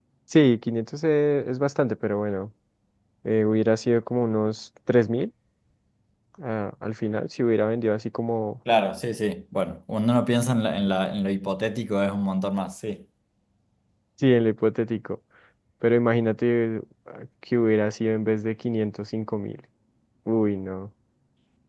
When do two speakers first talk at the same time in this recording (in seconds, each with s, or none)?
none